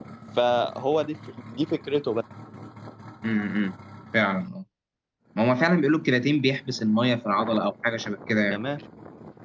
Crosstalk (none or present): none